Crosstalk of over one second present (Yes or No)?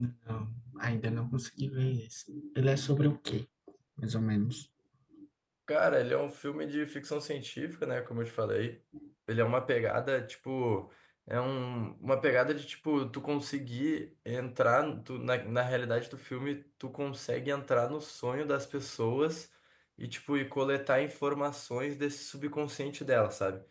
No